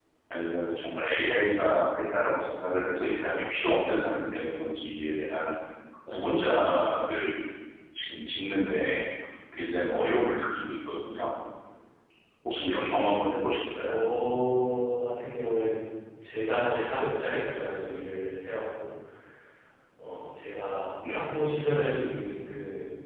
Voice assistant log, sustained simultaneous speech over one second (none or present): none